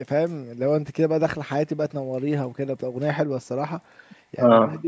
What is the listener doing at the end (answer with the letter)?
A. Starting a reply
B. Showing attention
B